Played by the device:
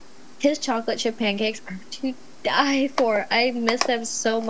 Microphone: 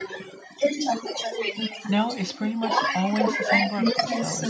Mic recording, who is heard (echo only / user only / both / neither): both